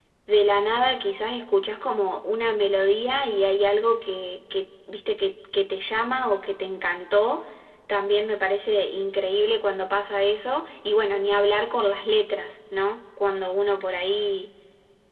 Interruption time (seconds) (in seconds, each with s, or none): none